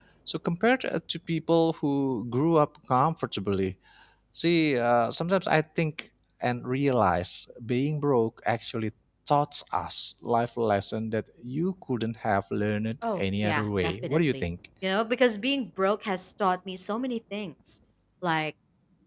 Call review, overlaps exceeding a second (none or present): present